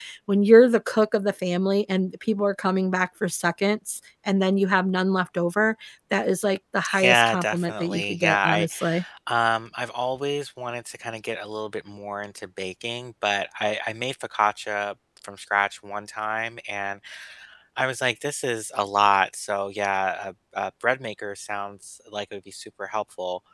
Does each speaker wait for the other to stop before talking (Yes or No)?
No